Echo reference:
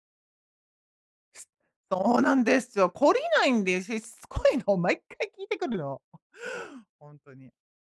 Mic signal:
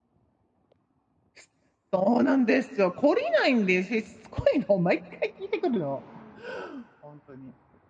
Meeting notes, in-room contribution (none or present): none